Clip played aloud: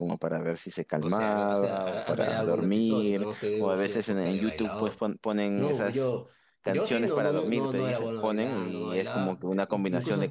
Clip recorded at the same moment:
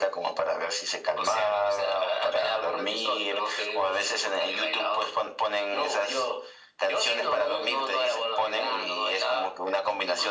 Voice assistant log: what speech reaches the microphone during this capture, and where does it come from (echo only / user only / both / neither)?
echo only